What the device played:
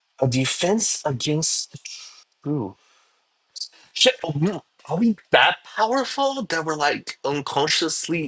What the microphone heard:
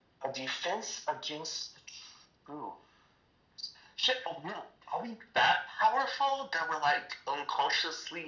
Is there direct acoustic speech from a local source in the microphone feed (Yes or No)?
No